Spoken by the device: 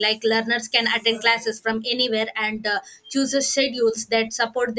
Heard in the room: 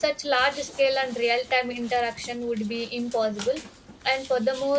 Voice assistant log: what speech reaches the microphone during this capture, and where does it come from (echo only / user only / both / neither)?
user only